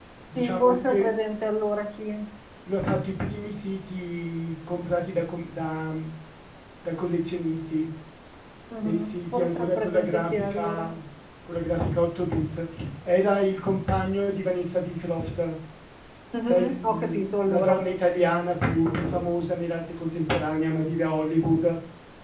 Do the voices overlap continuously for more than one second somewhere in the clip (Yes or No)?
Yes